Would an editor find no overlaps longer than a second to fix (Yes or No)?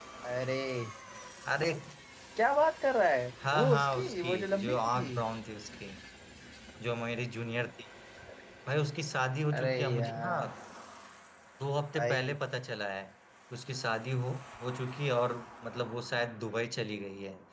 No